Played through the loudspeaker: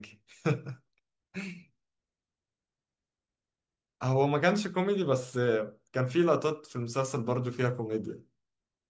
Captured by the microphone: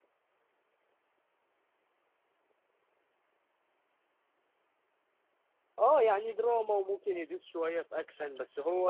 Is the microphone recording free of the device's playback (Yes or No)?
Yes